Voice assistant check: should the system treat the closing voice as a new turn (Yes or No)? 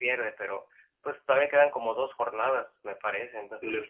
Yes